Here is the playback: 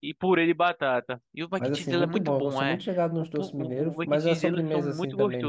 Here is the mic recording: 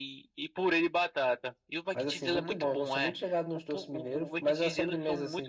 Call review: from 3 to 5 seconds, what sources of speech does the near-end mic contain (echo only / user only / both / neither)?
echo only